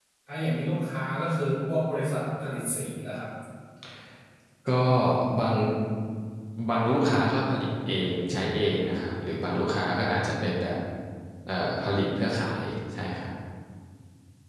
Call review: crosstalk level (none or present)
none